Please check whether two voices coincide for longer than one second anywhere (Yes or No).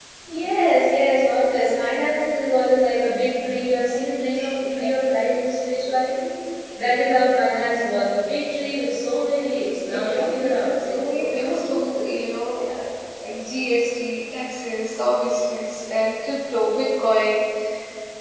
Yes